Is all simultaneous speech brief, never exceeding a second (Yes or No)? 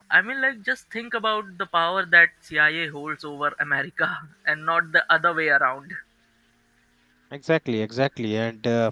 Yes